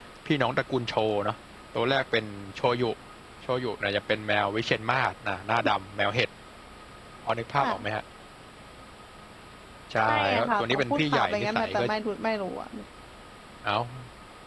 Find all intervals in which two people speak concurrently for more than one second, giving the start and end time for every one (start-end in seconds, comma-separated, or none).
10.1-11.8